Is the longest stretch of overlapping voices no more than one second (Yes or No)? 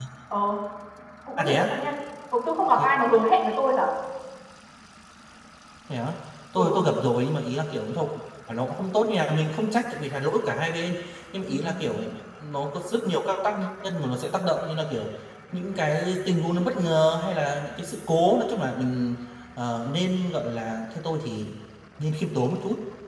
Yes